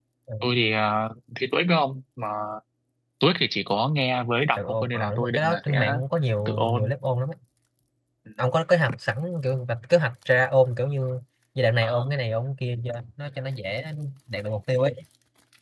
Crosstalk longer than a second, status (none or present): present